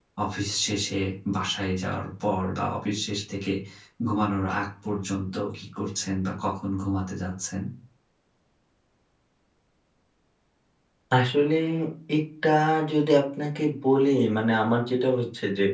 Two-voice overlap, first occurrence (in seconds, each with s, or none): none